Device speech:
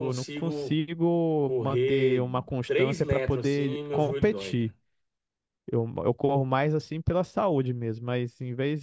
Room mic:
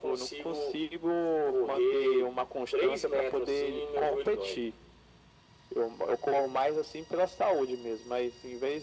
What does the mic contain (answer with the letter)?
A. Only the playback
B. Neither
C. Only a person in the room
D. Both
A